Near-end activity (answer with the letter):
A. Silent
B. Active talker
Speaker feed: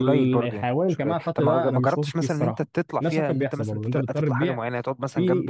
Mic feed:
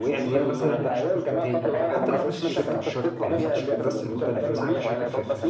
B